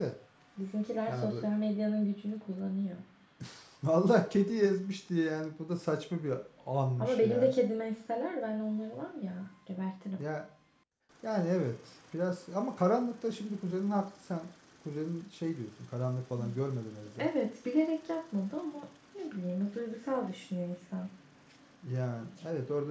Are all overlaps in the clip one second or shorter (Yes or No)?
Yes